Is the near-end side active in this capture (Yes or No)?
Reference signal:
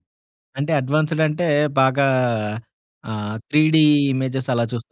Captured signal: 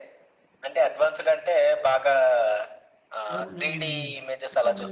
Yes